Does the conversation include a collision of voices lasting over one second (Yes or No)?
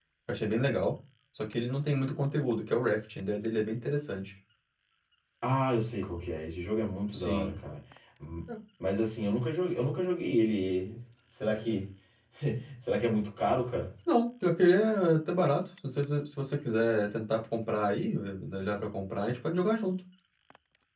No